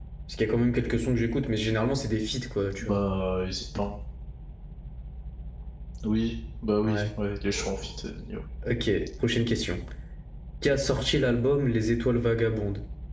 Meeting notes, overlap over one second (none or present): none